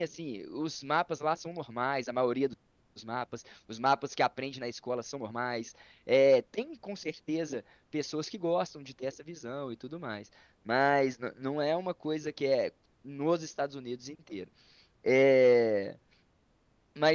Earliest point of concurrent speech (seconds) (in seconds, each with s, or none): none